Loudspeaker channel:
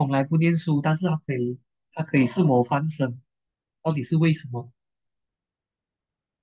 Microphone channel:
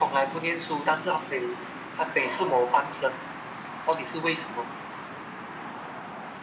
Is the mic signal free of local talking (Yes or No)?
Yes